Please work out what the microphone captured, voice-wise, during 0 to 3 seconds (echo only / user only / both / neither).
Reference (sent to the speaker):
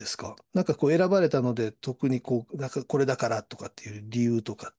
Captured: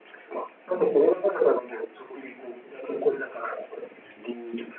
echo only